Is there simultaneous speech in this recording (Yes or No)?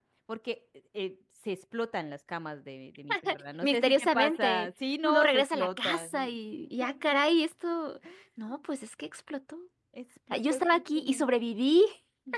Yes